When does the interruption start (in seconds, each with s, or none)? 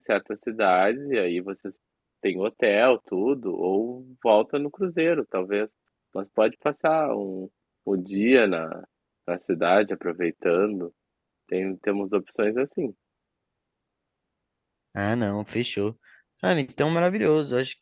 none